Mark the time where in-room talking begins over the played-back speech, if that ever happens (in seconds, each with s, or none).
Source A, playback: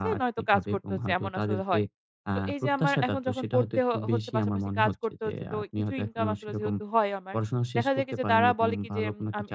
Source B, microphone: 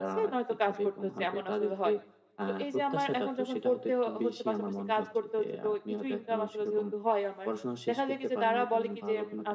none